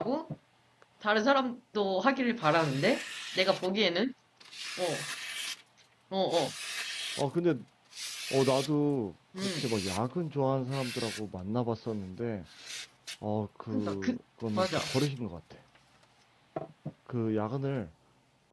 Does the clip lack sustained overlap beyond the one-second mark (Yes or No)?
Yes